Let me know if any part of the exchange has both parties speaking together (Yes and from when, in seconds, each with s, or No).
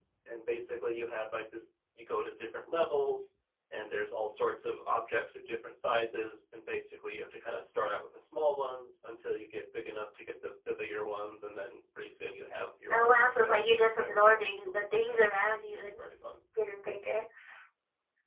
Yes, from 12.9 s